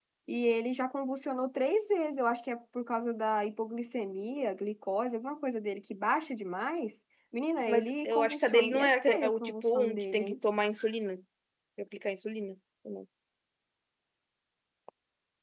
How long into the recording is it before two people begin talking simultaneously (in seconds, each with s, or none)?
7.7 s